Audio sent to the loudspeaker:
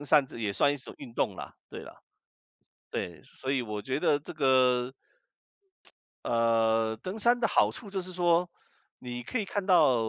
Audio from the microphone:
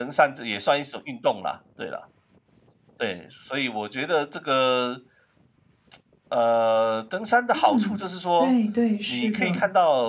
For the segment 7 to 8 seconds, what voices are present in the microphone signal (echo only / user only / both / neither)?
both